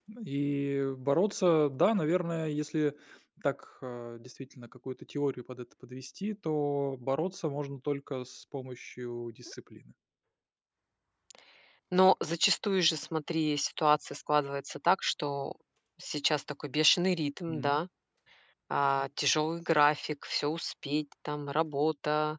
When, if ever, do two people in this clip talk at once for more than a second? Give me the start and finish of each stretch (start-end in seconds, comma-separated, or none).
none